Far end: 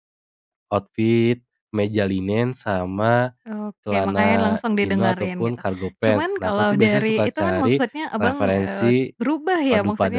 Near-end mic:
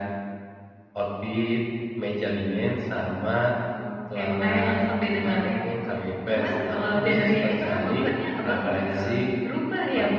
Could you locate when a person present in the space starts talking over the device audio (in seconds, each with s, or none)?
none